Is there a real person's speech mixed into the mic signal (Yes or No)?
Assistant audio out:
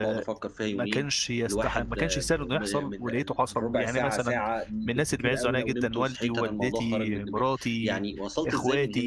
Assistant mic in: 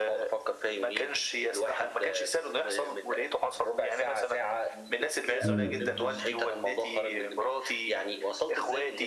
Yes